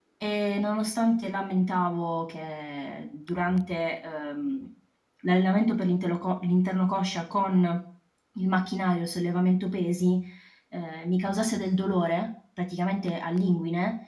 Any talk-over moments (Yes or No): No